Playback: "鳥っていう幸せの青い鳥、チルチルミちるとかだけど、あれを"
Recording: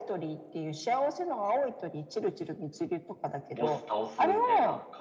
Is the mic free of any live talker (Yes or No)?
No